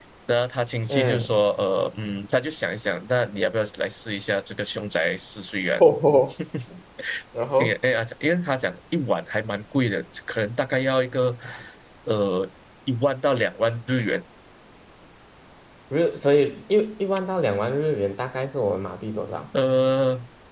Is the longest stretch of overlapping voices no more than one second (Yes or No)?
Yes